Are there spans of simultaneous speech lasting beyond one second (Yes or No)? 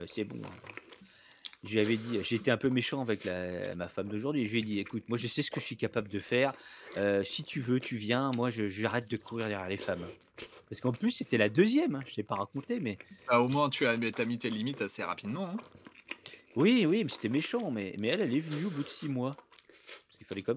No